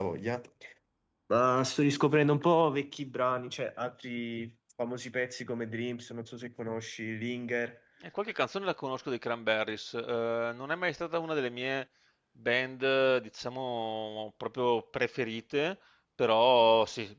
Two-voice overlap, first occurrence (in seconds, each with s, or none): none